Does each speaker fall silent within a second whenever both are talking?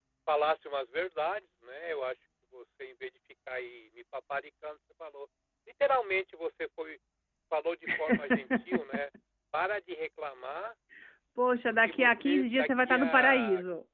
No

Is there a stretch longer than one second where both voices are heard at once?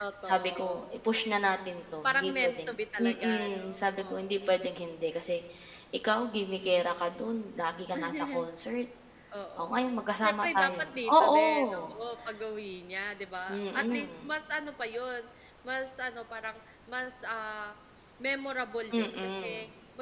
Yes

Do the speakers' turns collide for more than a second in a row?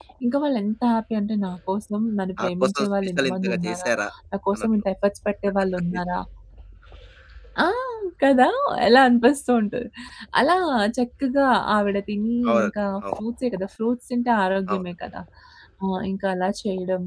Yes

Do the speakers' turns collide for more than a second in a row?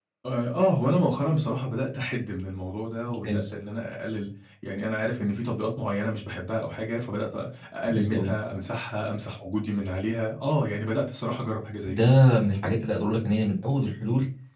No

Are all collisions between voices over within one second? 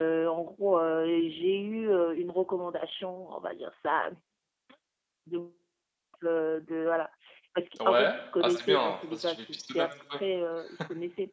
No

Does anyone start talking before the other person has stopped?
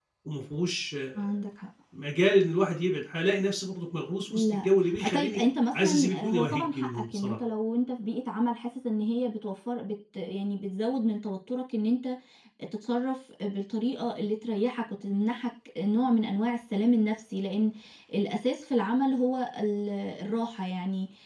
Yes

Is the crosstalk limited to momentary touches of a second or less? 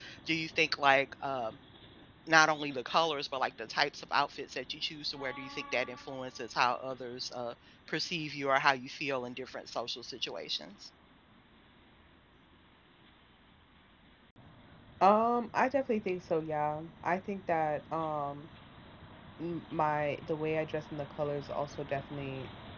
Yes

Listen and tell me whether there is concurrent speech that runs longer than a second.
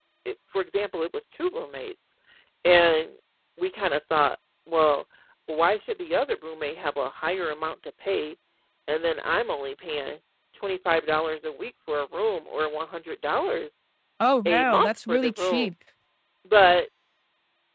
Yes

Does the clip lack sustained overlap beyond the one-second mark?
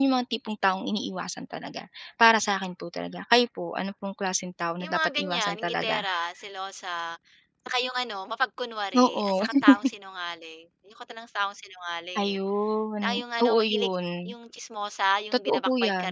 No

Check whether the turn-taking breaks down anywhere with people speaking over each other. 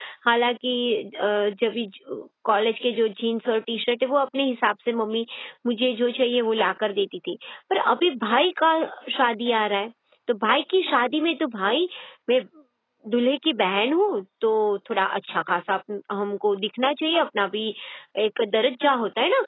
No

